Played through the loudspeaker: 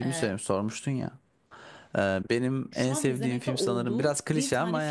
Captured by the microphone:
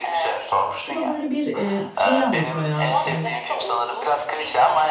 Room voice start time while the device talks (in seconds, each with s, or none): 0.9 s